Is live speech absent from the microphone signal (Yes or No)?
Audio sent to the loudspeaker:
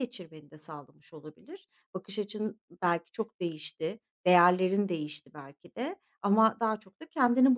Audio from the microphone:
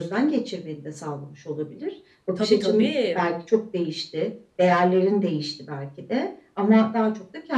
No